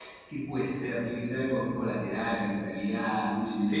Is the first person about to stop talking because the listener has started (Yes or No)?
Yes